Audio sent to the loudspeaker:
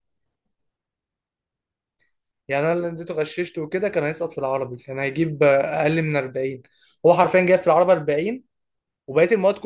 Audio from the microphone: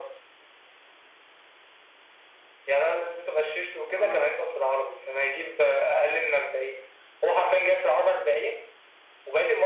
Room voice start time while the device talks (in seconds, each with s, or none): 3.9 s